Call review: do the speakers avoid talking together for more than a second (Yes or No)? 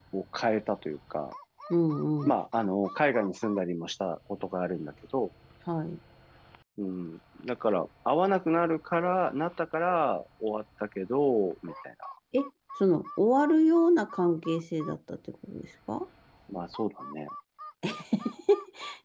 Yes